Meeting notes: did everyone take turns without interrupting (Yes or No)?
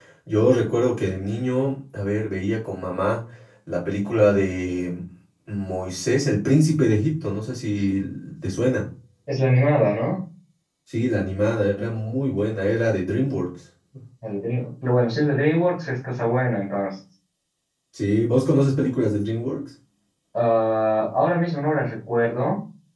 Yes